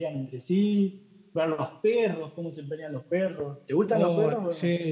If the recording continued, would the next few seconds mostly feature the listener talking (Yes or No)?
Yes